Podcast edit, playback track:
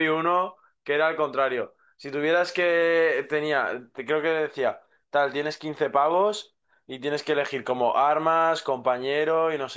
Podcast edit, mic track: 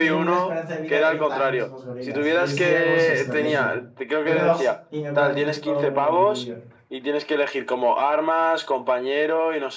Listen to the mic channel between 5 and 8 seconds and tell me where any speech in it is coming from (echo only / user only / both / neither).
both